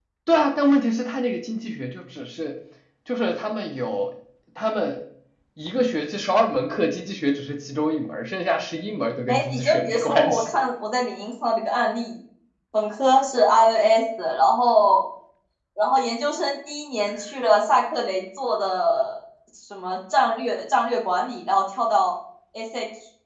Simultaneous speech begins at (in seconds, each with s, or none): 9.3 s